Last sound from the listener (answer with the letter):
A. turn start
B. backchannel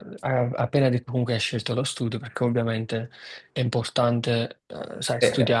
B